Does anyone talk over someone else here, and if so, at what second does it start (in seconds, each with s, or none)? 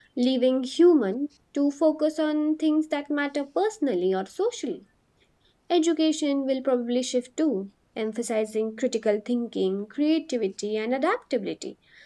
none